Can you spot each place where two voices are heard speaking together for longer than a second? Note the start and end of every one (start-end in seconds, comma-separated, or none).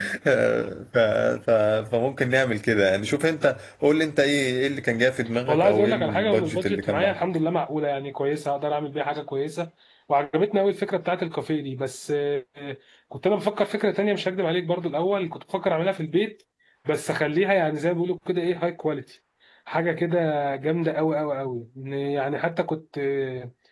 5.5-7.2